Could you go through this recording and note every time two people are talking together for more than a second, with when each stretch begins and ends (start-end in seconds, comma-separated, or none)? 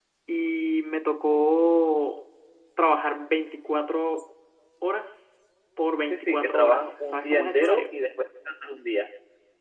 6.1-7.9